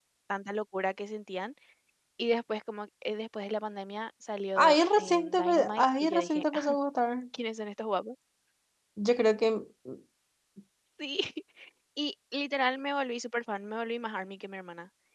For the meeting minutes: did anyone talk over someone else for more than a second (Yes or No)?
Yes